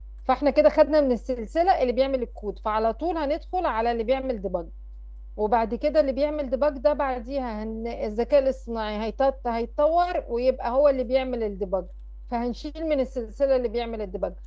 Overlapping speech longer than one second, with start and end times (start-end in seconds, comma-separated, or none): none